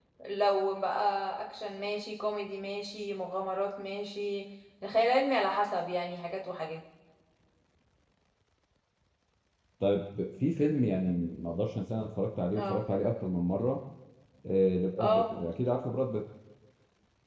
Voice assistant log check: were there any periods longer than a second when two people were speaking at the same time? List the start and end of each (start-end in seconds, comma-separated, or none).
none